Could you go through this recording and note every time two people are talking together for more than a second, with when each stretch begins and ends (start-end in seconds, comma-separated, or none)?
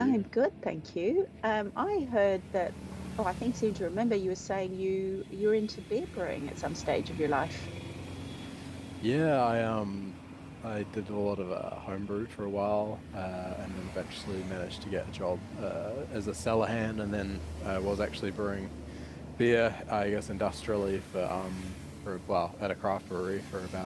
none